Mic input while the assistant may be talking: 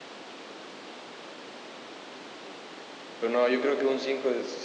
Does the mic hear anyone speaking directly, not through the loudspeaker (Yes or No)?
Yes